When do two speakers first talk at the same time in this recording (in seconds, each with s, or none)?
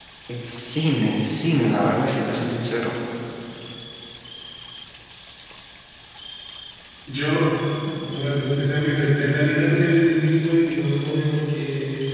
none